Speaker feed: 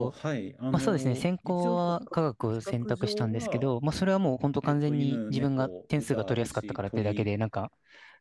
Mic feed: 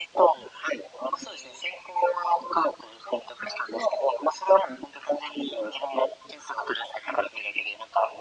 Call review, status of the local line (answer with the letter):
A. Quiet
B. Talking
A